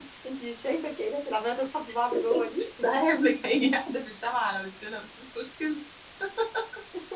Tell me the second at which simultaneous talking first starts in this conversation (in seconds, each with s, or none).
none